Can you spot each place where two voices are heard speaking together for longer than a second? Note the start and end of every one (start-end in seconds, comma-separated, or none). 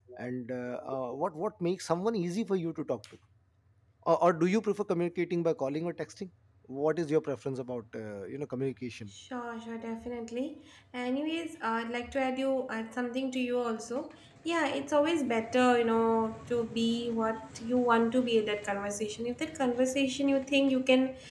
none